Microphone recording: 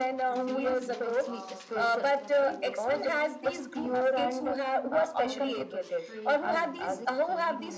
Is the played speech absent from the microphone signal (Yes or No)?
No